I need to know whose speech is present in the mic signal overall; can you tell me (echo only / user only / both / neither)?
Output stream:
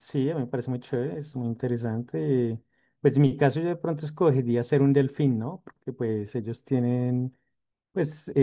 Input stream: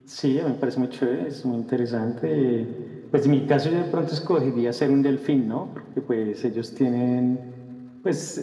echo only